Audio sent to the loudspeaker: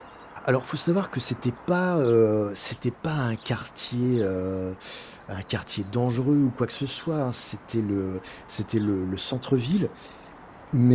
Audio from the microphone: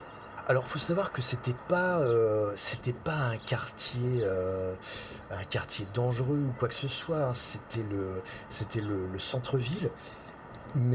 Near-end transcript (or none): none